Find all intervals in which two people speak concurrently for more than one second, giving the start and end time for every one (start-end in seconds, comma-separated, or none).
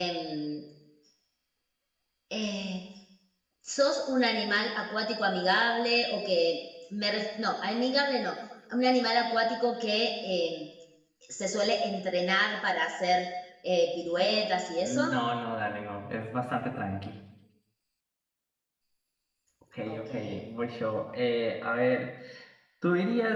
none